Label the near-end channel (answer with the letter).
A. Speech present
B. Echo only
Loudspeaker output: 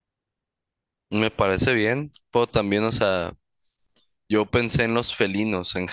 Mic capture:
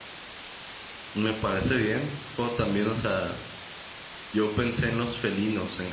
B